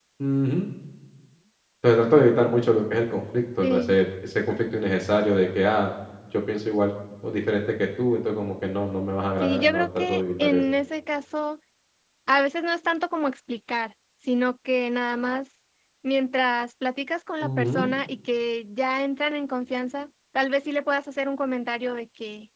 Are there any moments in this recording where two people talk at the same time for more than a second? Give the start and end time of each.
9.4-10.6

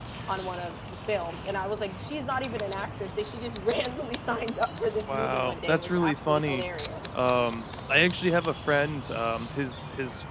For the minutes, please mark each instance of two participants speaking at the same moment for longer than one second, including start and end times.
5.1-6.6

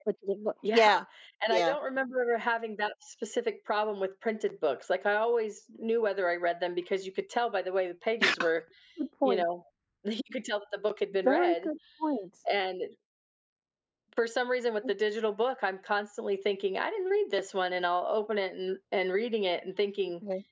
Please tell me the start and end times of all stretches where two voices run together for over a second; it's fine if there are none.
none

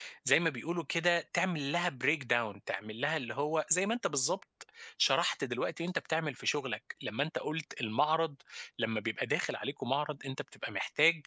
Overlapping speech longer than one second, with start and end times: none

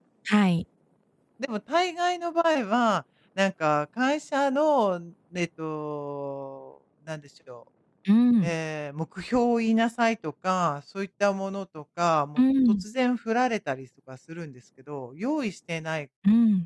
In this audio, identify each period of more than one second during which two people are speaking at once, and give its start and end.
none

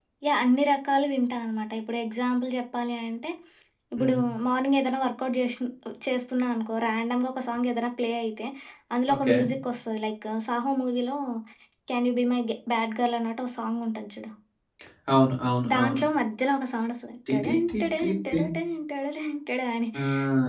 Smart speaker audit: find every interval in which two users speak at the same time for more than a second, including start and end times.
17.3-18.5

